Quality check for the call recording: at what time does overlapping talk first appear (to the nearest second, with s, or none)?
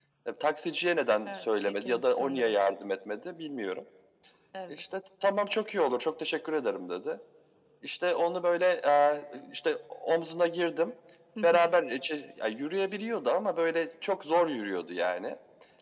1 s